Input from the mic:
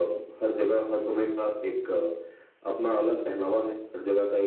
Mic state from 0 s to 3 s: echo only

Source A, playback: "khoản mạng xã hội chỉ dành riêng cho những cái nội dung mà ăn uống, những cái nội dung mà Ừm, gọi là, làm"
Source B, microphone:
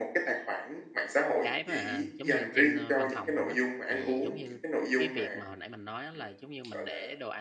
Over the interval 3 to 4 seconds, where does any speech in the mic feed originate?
both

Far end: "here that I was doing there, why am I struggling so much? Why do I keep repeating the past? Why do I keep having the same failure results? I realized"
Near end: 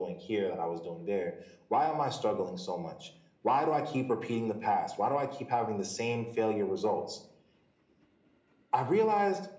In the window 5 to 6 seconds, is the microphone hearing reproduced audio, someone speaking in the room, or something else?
echo only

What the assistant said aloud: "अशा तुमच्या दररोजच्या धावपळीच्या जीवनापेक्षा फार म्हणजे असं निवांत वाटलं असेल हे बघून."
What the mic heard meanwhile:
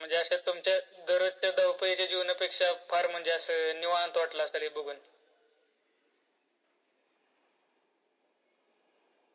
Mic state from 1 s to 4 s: echo only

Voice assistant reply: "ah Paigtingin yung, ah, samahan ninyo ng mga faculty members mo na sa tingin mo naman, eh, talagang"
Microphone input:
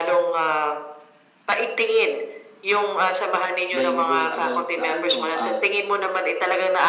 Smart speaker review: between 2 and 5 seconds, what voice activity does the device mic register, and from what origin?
both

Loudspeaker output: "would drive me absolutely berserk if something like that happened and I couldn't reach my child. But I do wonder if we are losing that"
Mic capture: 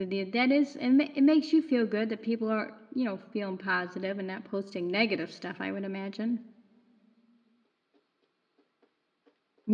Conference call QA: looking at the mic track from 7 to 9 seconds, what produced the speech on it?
neither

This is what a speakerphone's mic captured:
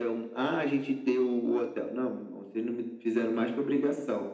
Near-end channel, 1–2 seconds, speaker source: echo only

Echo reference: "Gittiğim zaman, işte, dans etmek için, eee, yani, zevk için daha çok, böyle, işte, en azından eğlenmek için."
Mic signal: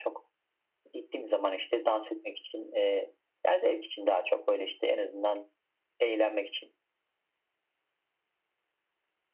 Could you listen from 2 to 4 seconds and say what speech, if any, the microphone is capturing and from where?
echo only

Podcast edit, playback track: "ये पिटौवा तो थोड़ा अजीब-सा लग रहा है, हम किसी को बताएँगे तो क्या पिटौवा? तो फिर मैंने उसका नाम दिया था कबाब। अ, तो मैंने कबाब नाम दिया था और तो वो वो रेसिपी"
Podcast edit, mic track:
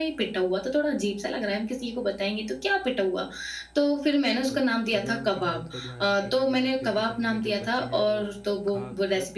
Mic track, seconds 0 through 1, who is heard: echo only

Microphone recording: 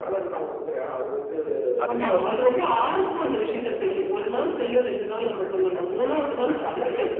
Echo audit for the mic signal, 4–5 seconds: echo only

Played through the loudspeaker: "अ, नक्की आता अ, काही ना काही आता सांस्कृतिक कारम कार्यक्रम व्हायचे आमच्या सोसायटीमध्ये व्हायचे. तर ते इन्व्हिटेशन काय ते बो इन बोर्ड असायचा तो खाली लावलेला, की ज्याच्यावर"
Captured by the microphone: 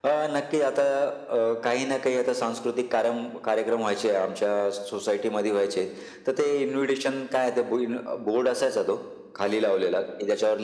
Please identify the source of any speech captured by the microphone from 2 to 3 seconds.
echo only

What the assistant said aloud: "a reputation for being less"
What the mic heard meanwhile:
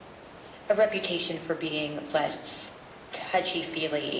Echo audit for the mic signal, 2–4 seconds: echo only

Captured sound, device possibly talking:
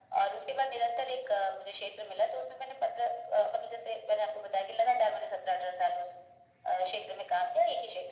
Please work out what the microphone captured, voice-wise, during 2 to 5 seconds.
echo only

